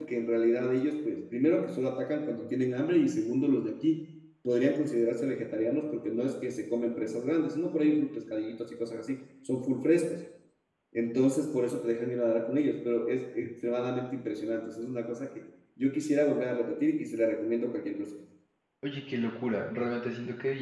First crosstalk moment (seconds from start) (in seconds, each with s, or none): none